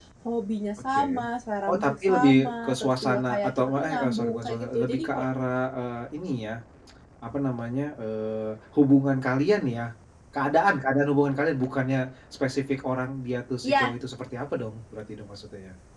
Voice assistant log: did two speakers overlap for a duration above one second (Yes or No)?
Yes